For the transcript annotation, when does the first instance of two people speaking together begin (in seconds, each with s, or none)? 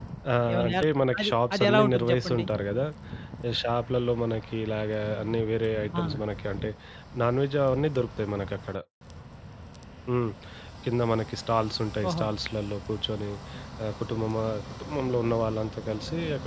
0.5 s